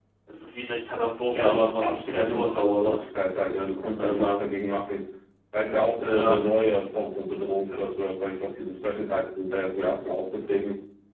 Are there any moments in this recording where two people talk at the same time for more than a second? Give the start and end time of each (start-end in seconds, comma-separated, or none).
1.4-3.1